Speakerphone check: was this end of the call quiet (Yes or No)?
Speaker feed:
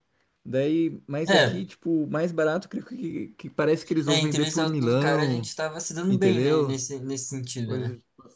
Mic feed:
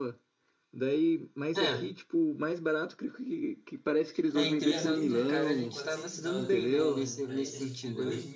No